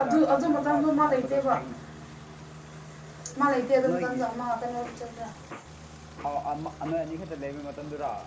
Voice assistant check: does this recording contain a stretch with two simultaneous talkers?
Yes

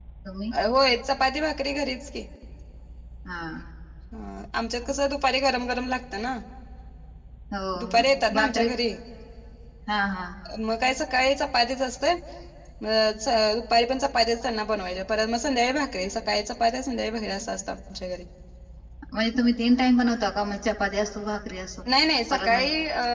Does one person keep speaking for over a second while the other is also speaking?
No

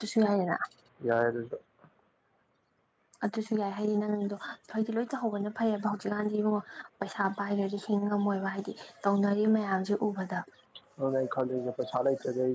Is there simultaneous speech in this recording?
No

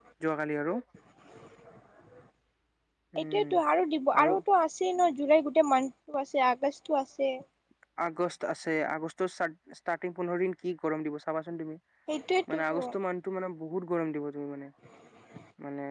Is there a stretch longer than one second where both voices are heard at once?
No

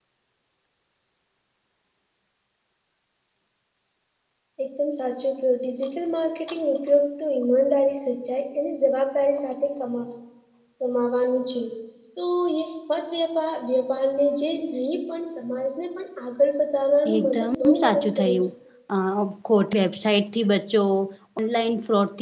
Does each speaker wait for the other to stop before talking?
No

